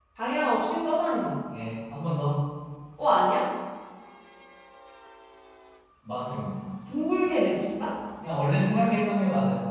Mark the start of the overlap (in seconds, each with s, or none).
none